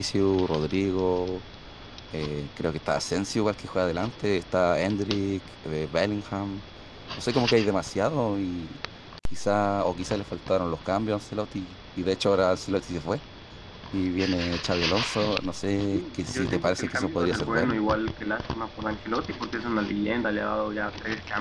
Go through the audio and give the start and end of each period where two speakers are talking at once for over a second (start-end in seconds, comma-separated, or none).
15.9-17.8